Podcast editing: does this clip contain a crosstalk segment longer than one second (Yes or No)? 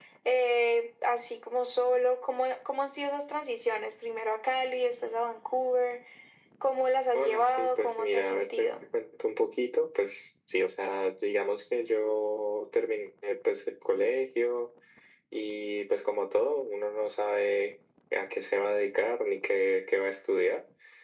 Yes